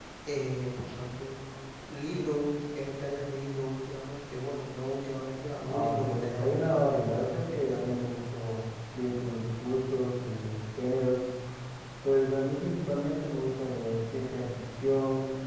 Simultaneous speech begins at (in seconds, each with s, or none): 5.5 s